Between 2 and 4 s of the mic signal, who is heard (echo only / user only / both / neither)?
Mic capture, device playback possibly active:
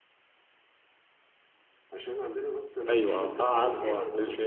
both